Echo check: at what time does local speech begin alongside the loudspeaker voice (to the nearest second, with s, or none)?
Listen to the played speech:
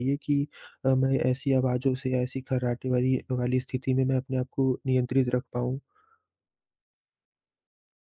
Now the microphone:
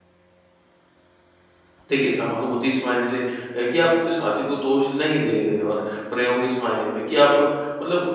2 s